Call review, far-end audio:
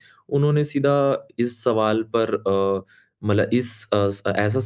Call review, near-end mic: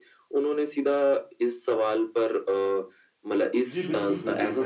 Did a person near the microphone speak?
Yes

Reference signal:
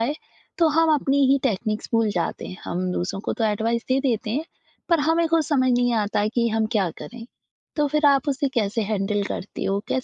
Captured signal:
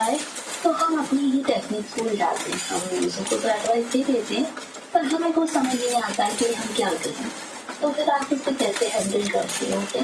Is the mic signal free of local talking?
Yes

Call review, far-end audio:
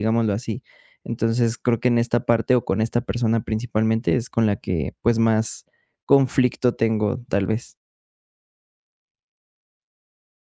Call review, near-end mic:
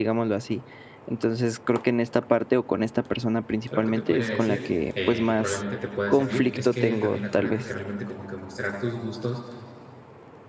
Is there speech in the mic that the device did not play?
Yes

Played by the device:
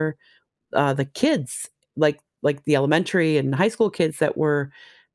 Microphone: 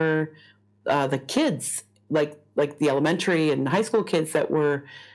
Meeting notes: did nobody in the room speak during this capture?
Yes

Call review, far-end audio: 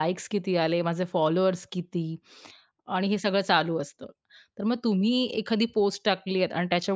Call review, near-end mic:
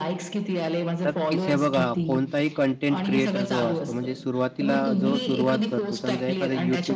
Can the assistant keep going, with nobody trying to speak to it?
No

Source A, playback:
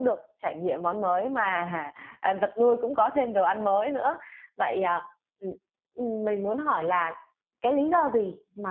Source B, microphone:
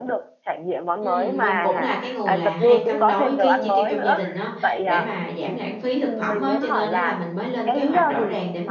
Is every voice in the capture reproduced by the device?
No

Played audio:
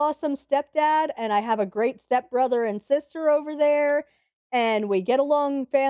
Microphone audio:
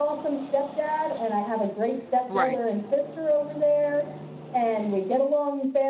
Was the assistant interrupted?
Yes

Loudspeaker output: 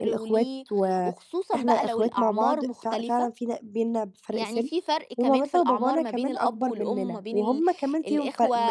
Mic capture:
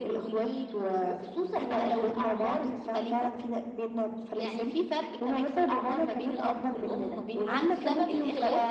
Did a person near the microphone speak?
Yes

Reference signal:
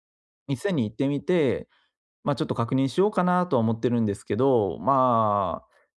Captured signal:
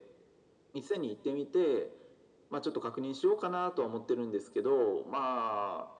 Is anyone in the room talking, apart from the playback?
No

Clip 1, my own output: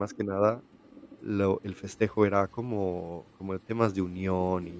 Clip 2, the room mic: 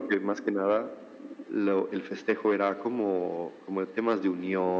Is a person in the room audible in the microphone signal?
No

